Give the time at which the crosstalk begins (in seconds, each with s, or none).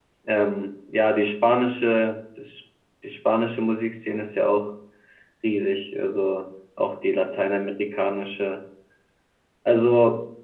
none